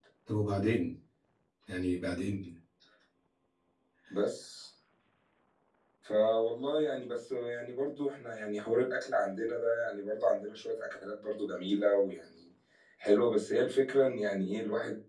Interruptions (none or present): none